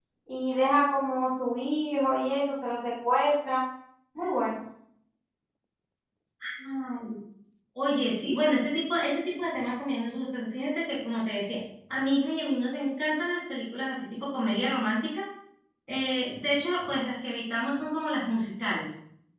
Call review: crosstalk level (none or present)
none